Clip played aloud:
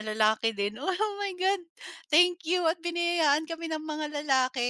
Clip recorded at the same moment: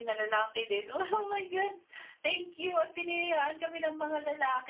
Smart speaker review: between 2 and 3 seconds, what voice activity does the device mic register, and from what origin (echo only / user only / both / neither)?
echo only